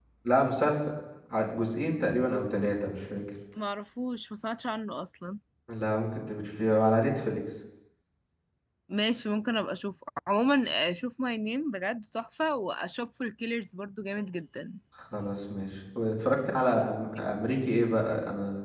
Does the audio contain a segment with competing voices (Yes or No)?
No